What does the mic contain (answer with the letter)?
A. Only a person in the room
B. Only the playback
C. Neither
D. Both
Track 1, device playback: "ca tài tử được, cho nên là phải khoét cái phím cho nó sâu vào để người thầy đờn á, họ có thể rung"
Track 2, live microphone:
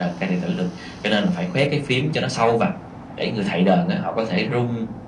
B